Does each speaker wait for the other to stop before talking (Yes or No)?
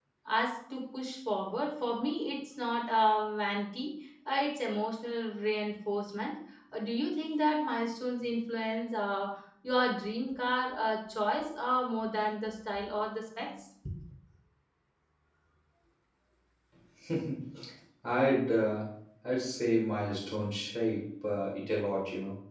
Yes